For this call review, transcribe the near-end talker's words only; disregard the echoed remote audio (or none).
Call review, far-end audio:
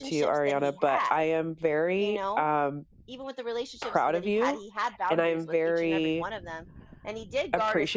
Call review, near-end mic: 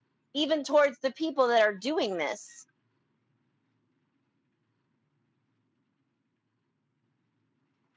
even towards the people that are doing this.